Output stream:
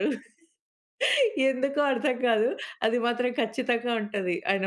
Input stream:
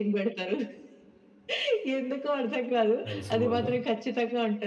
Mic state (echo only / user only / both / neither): both